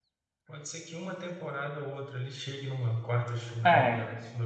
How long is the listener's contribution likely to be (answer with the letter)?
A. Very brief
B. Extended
A